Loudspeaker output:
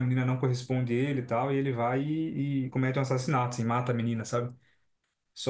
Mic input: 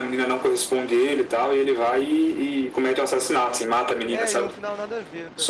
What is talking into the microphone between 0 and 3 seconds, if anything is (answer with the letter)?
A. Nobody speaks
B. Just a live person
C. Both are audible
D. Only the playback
D